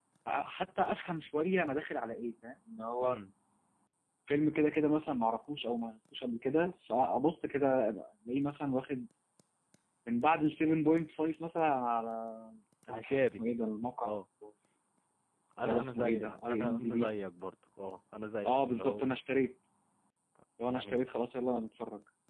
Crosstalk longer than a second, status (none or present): present